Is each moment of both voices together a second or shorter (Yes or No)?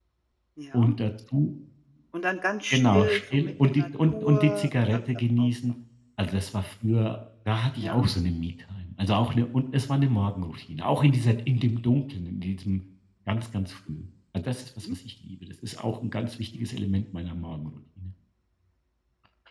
No